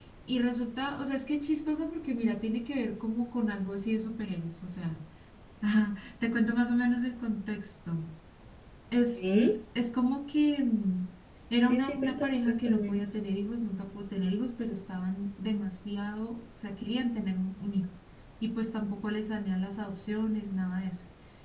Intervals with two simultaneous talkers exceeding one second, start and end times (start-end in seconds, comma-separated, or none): 11.6-13.0